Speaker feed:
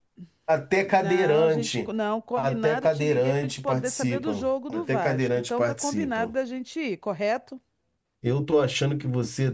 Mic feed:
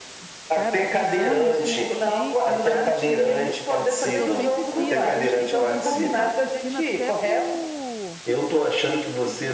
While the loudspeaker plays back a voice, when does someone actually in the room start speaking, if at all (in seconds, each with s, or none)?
0.5 s